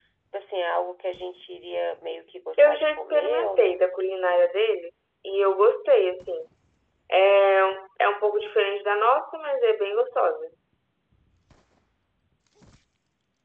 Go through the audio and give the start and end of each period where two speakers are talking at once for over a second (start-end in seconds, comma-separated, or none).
2.6-3.8